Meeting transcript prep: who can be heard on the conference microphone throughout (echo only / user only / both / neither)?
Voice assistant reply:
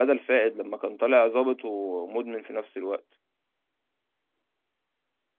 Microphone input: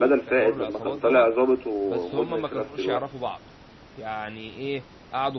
both